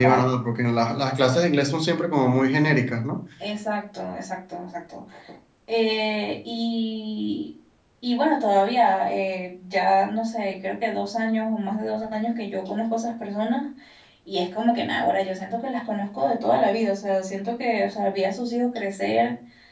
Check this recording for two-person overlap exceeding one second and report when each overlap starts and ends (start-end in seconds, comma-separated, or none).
none